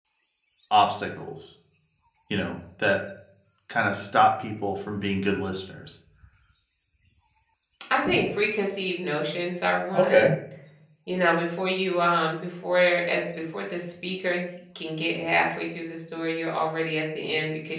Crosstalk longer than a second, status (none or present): none